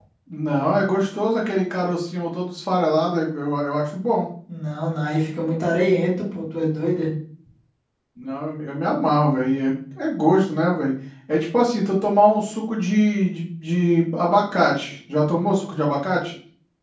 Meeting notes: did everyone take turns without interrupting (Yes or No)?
Yes